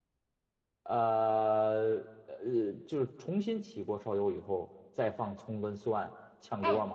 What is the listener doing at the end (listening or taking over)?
taking over